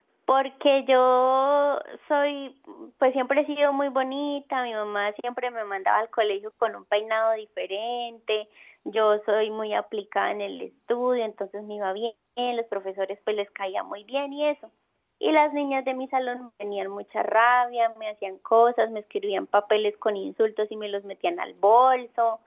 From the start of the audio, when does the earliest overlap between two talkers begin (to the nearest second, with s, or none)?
none